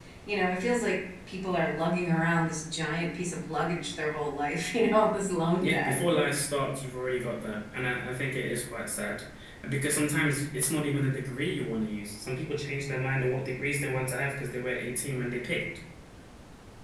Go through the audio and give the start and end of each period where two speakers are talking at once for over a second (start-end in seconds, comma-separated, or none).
none